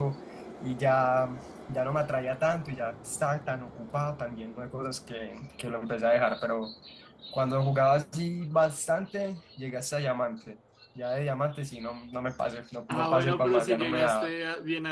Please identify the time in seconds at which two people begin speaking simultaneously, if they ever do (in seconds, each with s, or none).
12.9 s